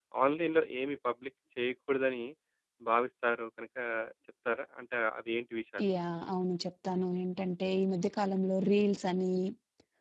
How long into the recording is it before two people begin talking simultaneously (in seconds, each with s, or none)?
none